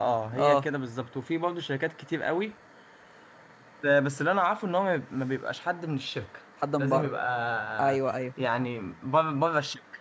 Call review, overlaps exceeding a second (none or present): none